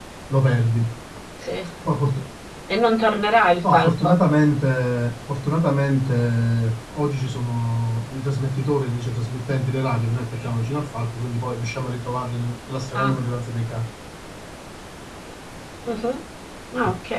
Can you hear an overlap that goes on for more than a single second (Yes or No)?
No